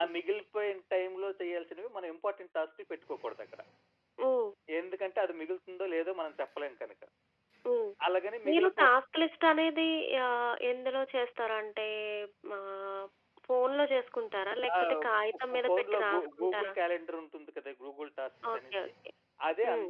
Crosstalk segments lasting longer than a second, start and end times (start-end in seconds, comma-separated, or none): 15.5-16.7